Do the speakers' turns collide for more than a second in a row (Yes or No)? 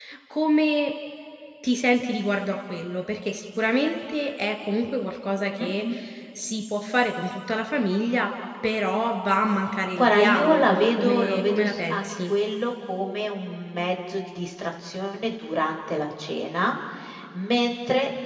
Yes